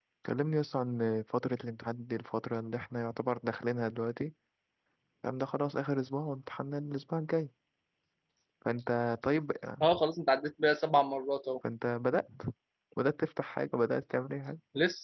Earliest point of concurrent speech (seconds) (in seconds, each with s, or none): none